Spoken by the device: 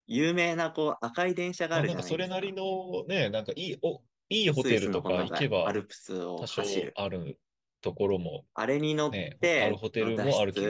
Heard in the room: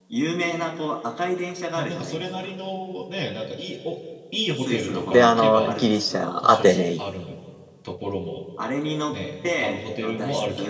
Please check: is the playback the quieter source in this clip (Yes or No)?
Yes